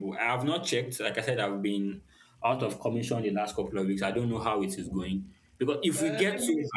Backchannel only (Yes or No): No